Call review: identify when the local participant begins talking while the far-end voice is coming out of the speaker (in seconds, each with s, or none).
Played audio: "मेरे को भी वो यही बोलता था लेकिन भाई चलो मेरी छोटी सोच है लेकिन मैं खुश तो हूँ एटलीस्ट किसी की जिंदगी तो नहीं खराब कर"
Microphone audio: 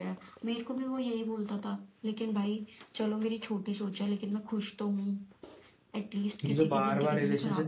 6.4 s